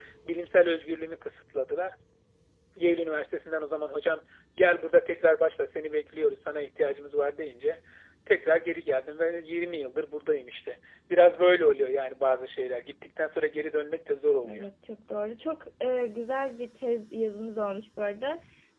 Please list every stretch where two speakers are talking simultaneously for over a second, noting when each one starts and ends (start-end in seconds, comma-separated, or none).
none